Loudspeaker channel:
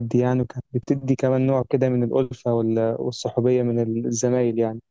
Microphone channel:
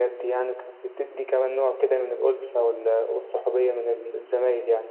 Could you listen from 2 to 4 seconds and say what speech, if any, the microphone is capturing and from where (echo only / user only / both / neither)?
echo only